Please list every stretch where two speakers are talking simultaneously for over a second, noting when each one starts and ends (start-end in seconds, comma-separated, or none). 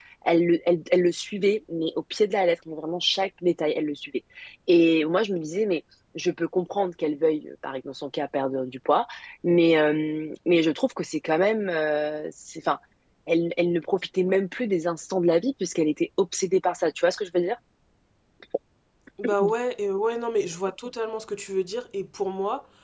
none